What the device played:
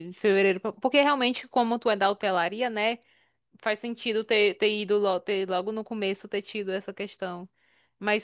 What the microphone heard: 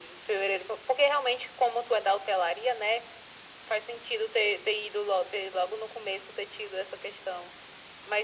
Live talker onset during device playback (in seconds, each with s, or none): none